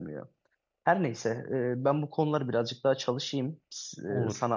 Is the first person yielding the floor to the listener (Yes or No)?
No